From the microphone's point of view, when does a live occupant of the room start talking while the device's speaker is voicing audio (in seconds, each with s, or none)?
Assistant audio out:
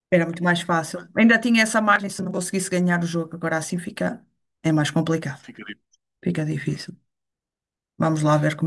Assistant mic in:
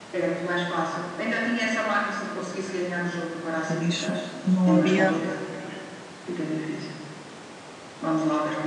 3.7 s